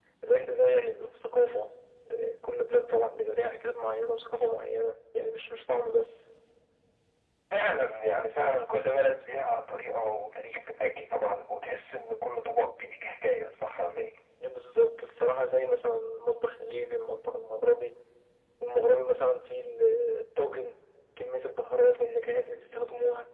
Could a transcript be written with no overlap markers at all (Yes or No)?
Yes